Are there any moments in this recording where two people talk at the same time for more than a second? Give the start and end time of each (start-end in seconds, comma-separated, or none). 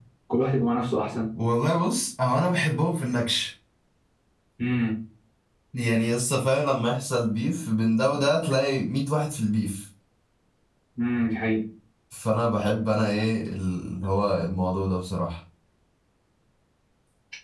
none